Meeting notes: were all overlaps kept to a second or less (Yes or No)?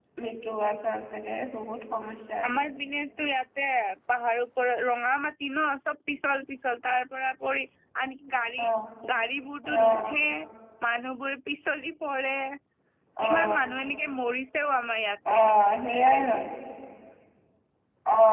Yes